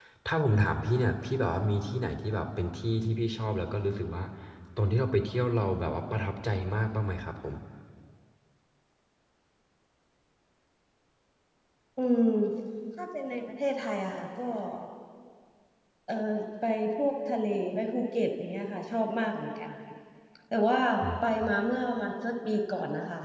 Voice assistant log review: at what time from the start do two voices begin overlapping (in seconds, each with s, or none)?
none